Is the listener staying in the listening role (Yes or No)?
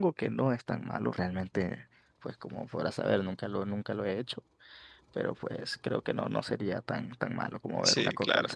No